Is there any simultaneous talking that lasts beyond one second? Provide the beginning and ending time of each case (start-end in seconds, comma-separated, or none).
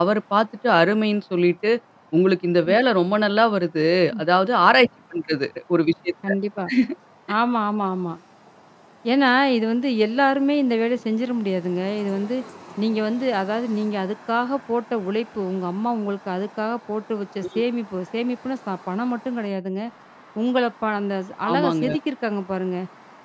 none